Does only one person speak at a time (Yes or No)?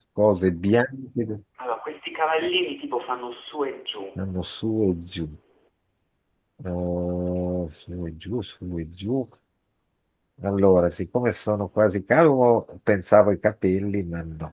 Yes